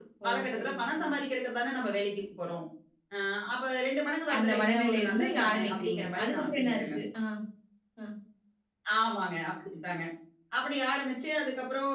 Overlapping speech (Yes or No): Yes